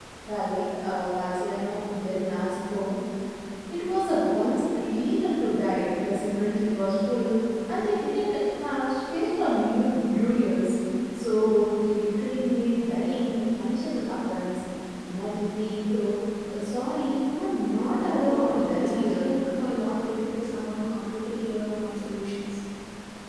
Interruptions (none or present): present